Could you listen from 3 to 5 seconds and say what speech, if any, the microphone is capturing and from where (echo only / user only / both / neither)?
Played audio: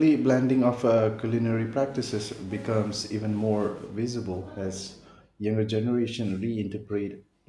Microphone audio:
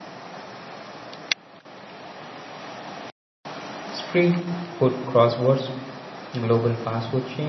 user only